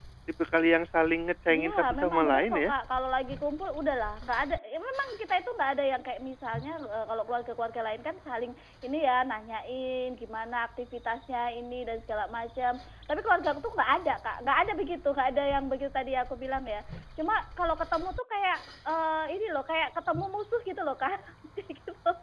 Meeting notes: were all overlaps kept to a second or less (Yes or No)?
No